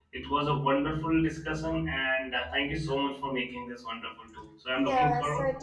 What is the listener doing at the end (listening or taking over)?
taking over